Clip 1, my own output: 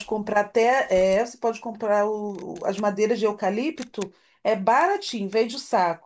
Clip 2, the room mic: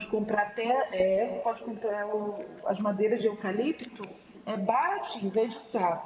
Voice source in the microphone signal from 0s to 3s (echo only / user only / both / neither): echo only